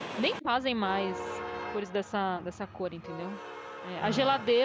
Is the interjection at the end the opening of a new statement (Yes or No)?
No